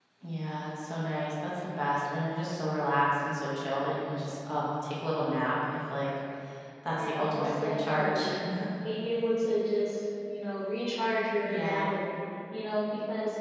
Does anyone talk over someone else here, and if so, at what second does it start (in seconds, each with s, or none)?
7.0 s